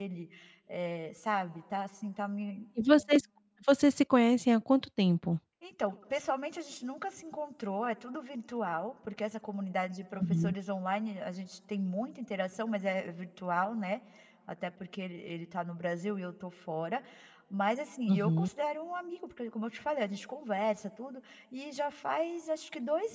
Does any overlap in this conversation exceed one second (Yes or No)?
No